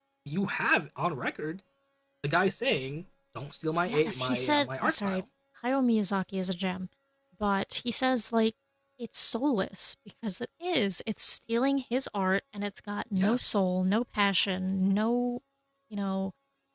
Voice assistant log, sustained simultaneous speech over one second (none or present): present